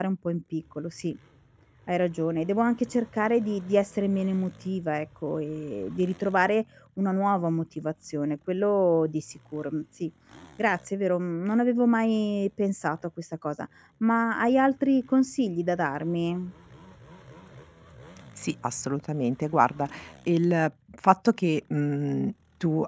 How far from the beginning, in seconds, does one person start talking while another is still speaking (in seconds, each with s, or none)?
none